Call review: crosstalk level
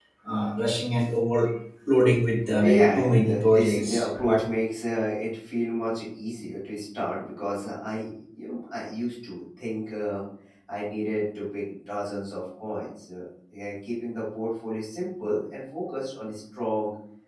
present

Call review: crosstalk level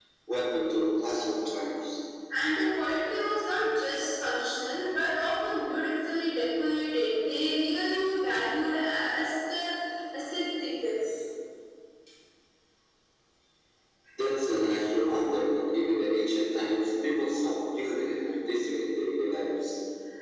none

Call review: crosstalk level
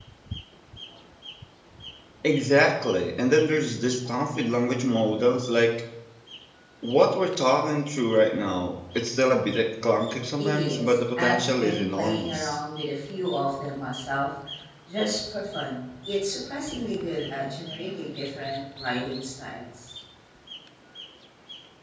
present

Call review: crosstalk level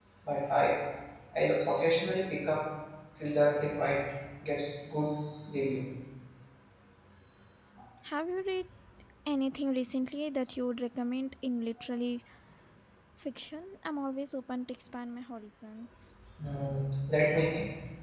none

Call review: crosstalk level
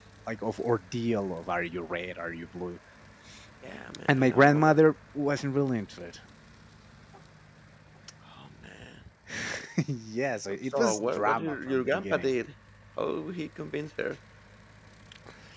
present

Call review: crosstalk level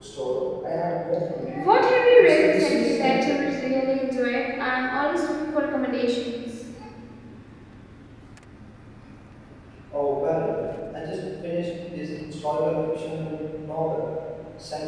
present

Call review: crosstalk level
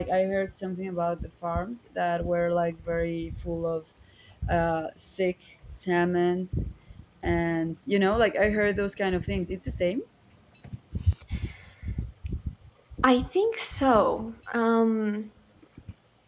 none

